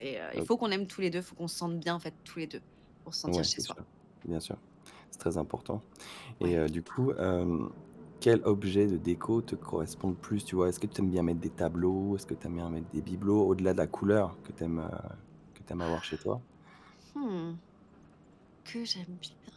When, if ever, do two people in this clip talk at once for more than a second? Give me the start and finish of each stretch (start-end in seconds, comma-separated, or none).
none